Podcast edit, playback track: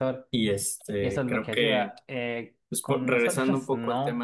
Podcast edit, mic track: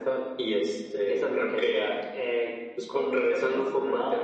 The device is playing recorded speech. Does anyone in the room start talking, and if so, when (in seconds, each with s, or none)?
none